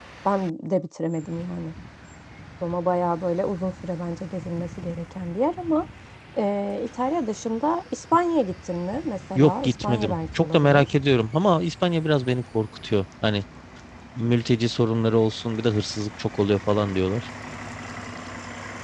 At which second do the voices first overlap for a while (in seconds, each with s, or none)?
9.3 s